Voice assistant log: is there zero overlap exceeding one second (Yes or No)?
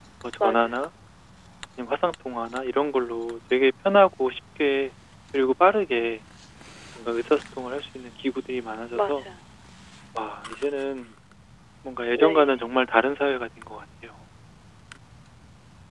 Yes